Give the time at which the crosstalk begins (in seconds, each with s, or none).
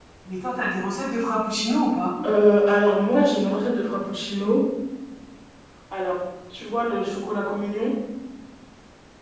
none